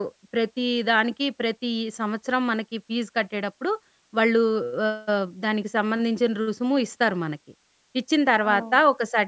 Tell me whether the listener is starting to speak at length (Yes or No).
No